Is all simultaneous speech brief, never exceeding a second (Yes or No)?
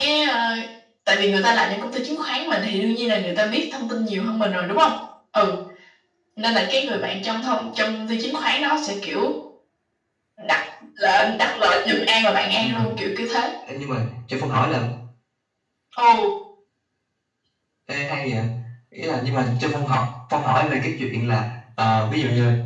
Yes